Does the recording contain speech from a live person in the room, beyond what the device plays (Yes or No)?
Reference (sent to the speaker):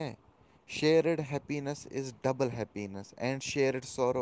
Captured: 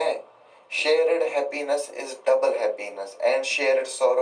No